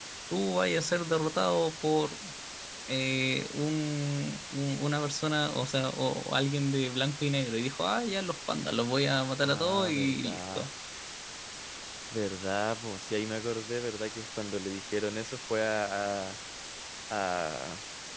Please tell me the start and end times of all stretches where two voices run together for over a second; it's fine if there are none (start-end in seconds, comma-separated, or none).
9.4-10.7